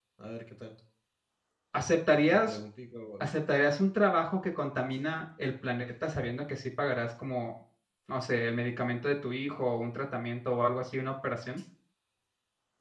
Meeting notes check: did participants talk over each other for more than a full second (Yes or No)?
No